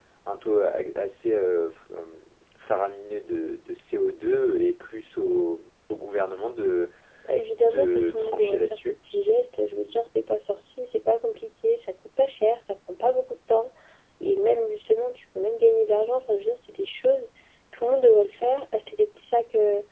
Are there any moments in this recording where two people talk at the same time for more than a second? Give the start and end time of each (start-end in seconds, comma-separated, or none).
7.6-8.9